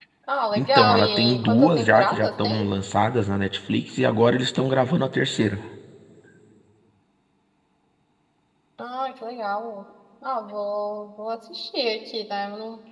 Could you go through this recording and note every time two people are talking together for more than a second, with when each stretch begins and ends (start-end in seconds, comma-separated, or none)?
0.6-2.6